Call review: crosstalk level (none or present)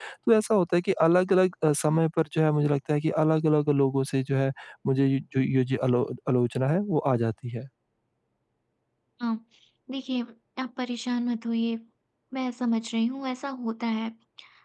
none